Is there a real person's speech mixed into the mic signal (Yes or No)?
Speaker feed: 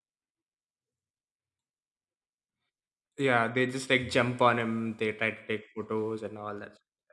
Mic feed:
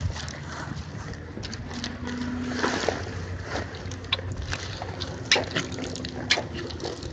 No